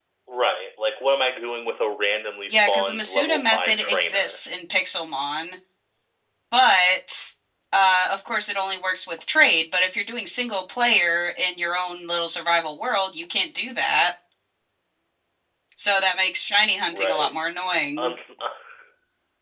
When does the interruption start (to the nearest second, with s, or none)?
3 s